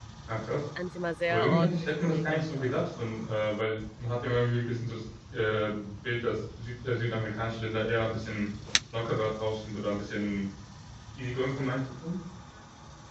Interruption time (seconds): 1.3 s

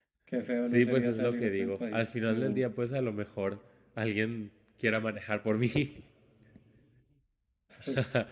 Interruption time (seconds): 0.7 s

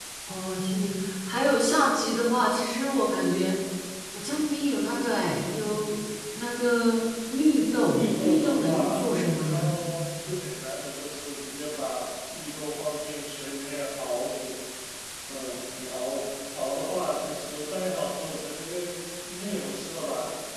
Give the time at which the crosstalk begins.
7.9 s

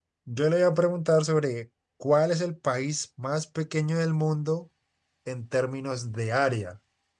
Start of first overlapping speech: none

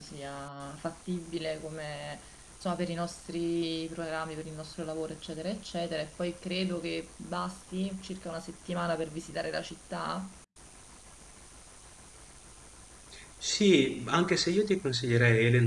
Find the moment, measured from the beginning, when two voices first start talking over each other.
none

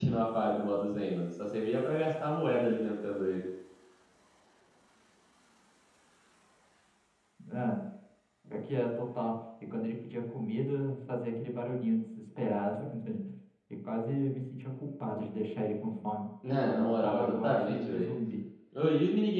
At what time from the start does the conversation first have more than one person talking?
16.7 s

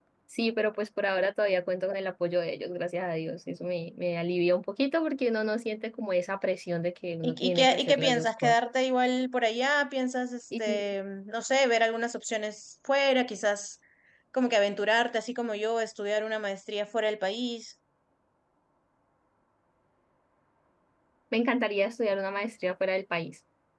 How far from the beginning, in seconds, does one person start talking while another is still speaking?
7.2 s

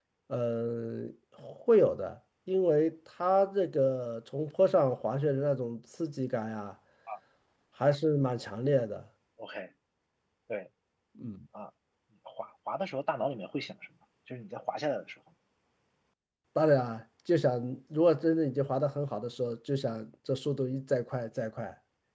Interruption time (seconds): none

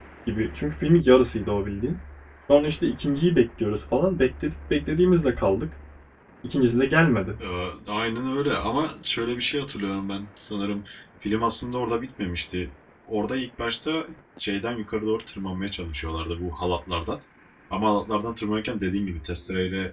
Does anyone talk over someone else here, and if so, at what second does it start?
none

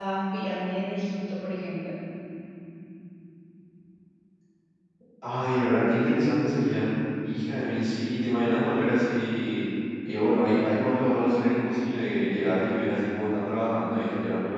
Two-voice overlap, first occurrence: none

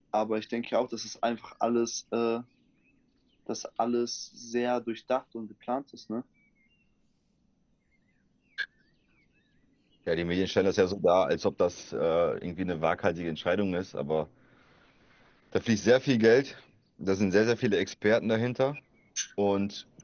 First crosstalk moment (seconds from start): none

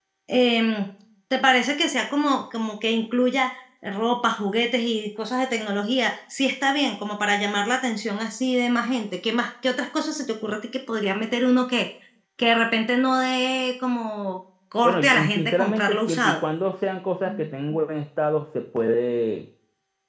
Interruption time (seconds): 14.8 s

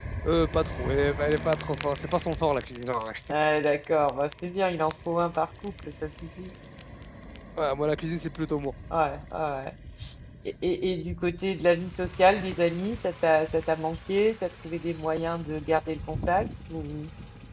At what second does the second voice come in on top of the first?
none

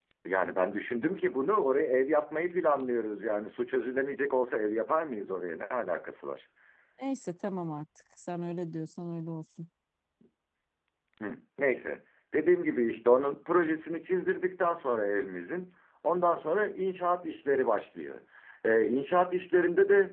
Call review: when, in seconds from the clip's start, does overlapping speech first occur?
none

